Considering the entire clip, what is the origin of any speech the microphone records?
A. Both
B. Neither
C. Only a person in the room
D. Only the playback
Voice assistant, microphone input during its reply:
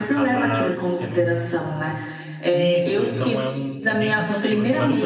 A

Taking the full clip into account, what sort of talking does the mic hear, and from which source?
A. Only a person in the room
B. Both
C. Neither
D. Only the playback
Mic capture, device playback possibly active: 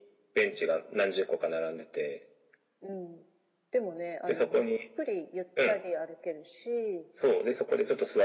D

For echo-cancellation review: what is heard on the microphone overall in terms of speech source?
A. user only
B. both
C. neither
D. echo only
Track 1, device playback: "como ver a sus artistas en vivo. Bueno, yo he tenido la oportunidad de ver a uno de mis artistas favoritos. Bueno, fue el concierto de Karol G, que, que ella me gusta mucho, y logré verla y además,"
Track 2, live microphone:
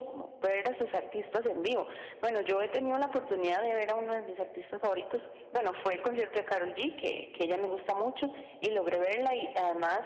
D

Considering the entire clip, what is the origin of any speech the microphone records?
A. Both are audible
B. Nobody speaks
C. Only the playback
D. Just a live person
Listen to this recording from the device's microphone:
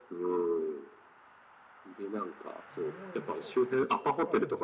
A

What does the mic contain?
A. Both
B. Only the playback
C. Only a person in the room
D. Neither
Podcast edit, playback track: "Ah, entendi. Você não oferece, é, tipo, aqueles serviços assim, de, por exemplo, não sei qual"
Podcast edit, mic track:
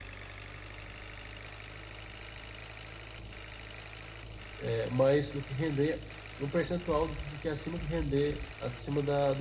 C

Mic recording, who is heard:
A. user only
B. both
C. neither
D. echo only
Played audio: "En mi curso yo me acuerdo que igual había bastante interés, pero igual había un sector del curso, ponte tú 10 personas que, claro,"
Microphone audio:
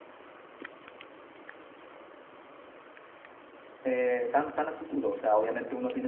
A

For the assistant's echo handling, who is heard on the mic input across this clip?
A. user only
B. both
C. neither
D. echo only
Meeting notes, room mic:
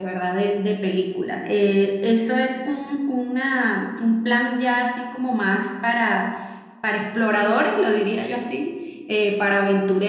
A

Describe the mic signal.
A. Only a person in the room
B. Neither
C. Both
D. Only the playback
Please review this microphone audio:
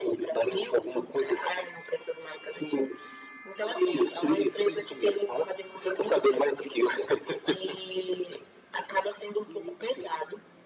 D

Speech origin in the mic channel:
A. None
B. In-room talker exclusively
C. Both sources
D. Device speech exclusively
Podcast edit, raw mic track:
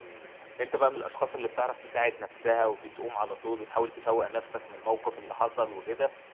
D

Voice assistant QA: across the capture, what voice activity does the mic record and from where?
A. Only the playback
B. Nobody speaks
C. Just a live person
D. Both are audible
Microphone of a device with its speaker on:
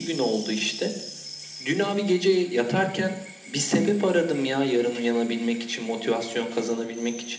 A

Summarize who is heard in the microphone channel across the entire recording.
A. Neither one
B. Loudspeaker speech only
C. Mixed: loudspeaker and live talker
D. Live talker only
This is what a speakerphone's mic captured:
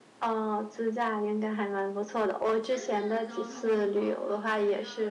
C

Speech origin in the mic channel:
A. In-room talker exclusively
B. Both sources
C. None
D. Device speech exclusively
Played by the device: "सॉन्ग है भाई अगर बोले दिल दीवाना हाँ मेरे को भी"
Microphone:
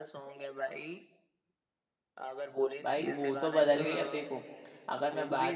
B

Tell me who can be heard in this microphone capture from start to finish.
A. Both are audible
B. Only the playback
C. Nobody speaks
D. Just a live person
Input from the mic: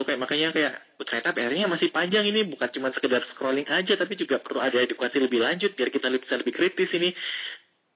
B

